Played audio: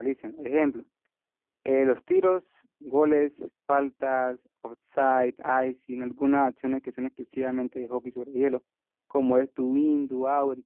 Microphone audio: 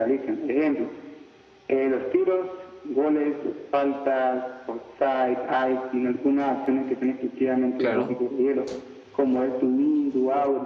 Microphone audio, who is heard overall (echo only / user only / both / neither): both